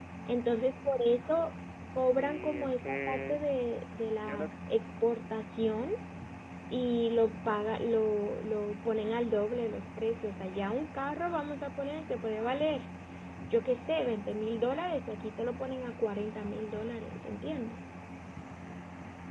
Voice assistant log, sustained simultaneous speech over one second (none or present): present